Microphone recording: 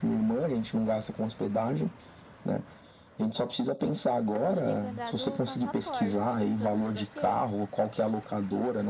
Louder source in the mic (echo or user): echo